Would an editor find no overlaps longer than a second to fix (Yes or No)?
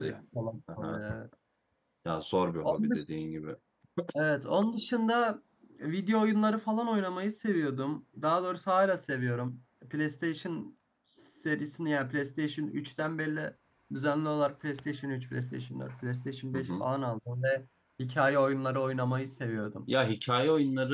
Yes